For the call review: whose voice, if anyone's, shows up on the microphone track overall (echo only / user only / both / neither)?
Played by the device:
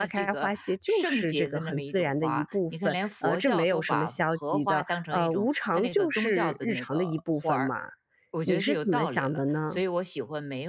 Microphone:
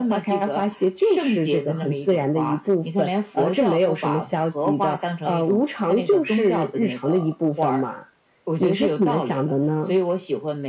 echo only